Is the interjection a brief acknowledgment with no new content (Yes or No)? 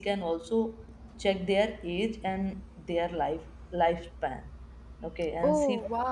Yes